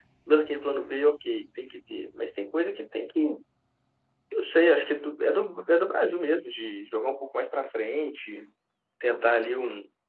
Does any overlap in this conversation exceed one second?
No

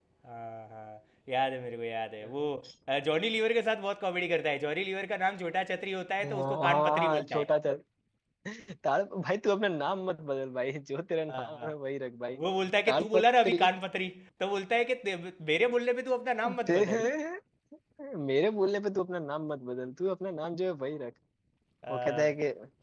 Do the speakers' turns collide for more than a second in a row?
Yes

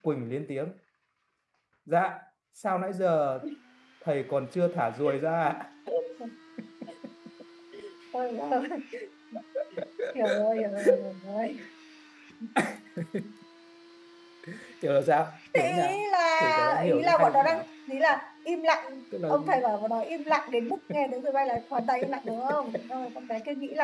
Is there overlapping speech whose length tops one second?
Yes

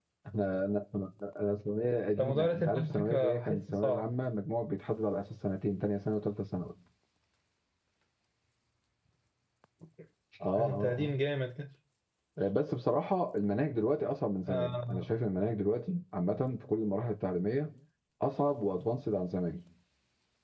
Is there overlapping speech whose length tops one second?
Yes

